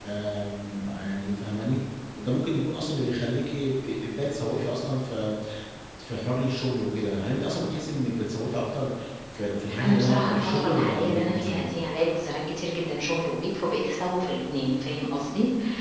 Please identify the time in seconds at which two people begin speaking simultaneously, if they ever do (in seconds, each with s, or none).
9.8 s